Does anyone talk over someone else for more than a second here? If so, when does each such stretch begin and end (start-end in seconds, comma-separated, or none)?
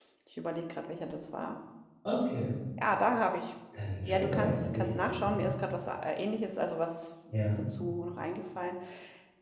4.1-5.5